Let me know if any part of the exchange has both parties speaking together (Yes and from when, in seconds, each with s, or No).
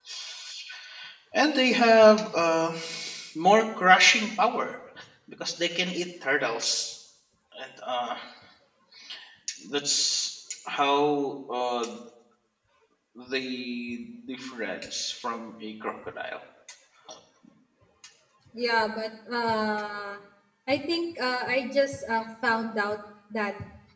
No